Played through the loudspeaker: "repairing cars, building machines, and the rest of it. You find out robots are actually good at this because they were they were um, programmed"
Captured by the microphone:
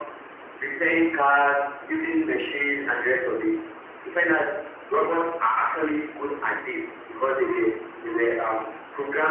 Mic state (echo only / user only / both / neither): echo only